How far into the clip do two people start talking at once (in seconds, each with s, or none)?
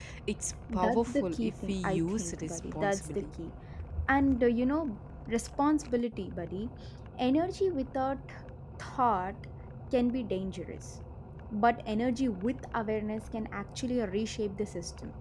0.7 s